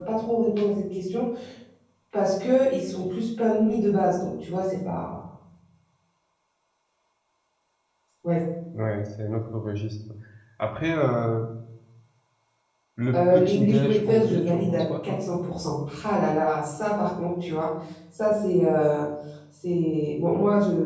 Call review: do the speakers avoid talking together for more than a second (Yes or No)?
No